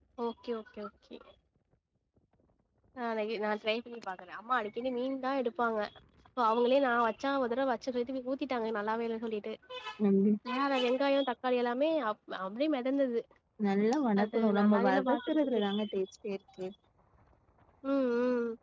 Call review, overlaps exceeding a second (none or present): present